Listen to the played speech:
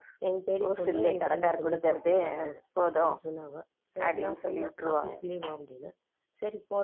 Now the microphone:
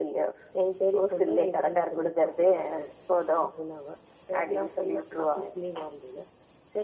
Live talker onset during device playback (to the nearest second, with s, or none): none